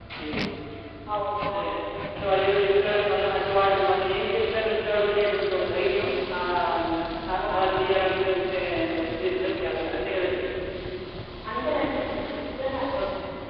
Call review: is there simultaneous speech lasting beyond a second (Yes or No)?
No